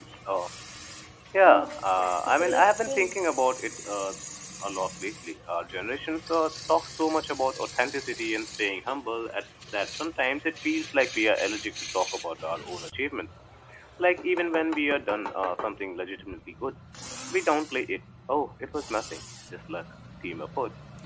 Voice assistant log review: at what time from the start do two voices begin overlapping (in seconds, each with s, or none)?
1.4 s